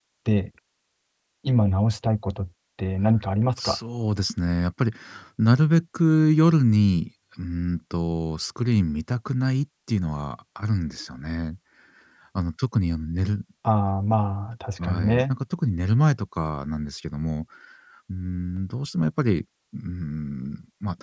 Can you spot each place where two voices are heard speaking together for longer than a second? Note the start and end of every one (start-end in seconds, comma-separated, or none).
none